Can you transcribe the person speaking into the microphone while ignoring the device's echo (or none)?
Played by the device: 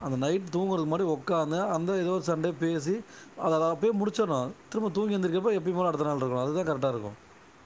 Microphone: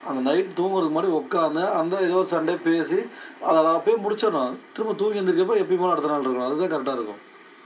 none